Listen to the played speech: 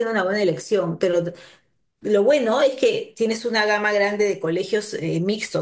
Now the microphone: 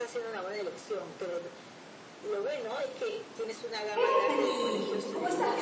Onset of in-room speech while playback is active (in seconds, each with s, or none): 4.0 s